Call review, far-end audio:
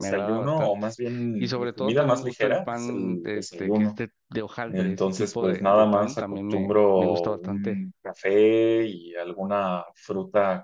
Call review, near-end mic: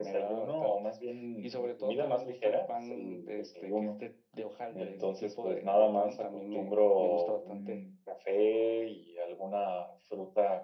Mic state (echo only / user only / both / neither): echo only